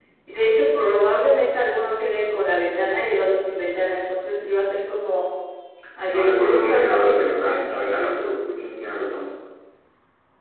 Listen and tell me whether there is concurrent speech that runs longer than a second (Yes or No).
Yes